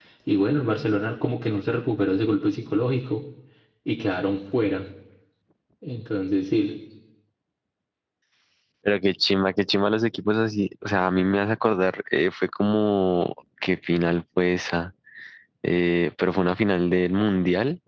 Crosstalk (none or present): none